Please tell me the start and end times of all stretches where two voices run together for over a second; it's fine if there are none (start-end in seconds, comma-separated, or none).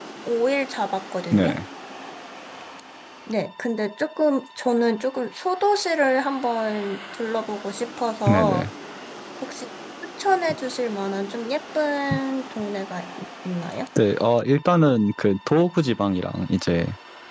none